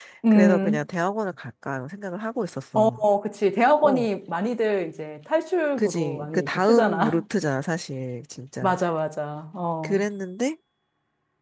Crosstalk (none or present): present